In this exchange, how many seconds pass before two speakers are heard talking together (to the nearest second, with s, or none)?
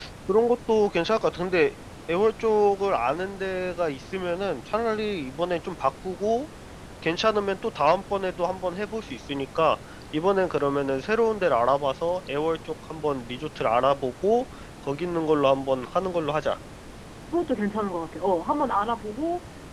none